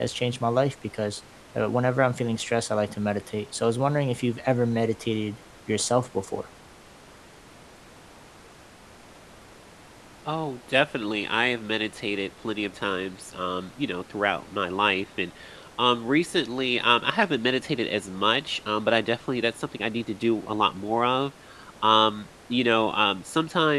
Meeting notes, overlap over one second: none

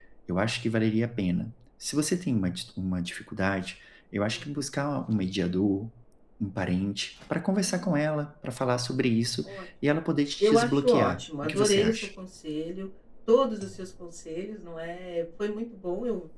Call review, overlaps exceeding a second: present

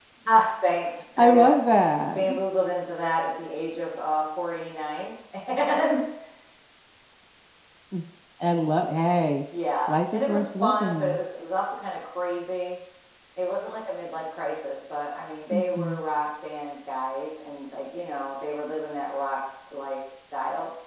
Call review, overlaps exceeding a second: present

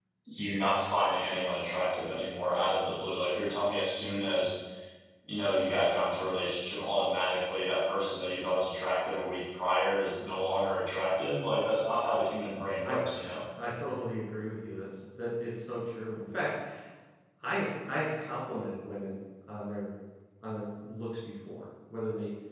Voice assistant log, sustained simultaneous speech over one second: none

